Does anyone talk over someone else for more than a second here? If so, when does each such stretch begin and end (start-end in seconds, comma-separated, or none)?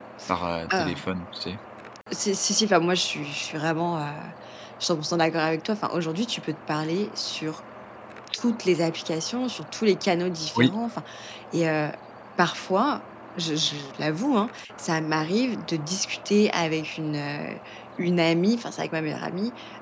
none